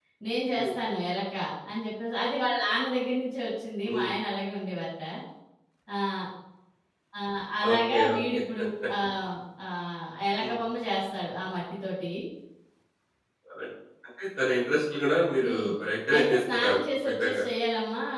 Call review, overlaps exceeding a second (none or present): present